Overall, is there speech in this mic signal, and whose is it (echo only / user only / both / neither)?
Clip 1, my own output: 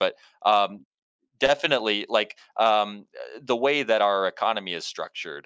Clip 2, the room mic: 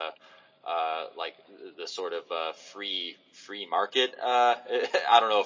user only